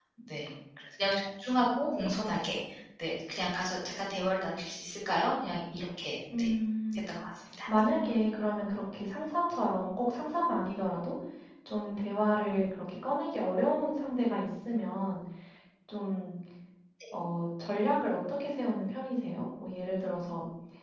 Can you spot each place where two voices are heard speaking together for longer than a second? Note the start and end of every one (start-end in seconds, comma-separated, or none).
none